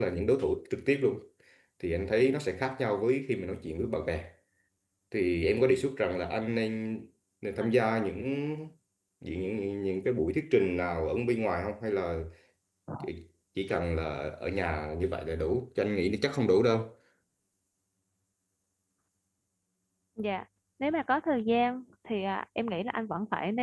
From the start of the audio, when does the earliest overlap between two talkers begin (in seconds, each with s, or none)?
none